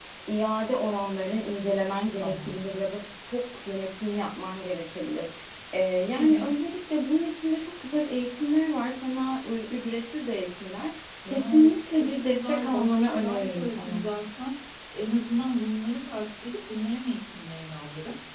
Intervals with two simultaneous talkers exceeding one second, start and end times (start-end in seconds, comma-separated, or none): 11.2-14.1